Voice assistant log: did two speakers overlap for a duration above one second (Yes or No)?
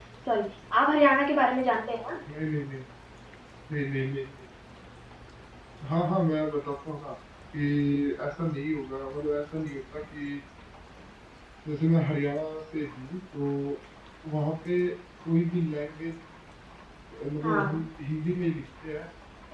No